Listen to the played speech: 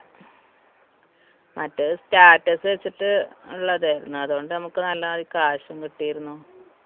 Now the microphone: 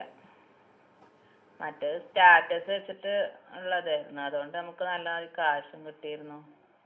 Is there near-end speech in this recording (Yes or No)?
No